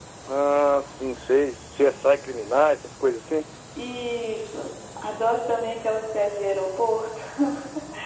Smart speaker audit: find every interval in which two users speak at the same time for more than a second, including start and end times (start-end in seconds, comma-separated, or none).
none